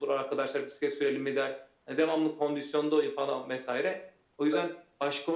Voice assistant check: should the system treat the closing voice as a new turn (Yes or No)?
No